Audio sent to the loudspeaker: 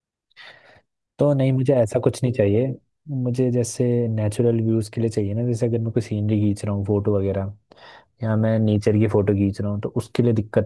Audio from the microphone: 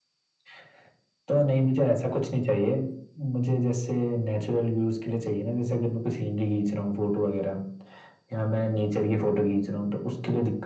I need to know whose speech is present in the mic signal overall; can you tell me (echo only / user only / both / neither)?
echo only